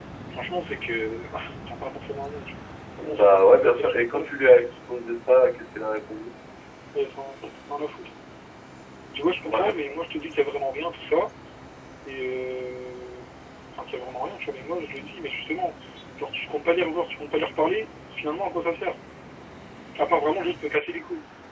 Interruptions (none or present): present